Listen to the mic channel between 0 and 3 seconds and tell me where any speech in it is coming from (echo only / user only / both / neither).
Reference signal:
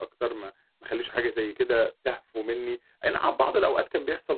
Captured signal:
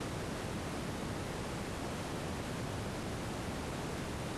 neither